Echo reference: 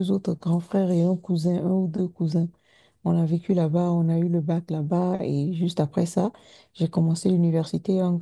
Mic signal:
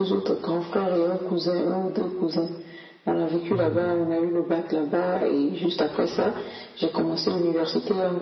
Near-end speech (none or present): present